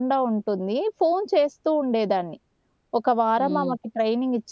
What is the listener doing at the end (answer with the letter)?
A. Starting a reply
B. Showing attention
B